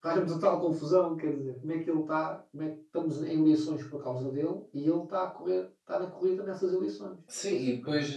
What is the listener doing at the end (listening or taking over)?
taking over